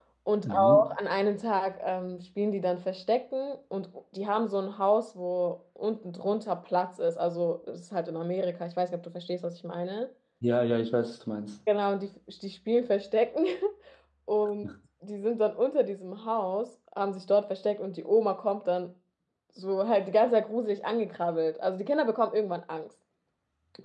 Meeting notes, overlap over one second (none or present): none